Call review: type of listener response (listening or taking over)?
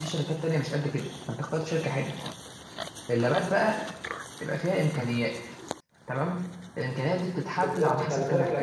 taking over